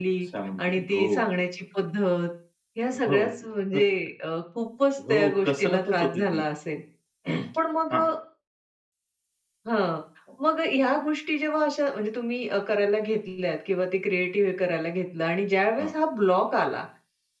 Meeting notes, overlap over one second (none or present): present